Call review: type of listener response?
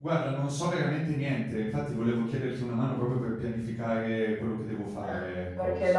taking over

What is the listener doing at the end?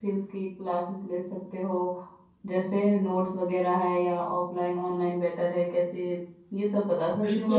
taking over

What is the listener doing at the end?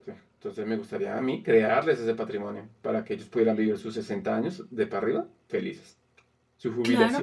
taking over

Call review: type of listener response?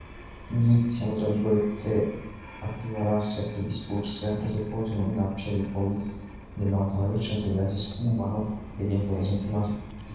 listening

